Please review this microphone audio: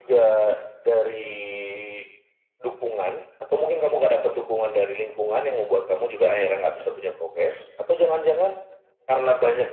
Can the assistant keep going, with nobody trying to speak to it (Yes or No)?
No